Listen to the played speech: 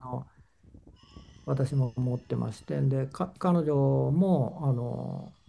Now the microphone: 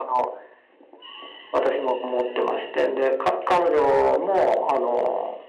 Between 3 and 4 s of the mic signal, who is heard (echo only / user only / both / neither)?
echo only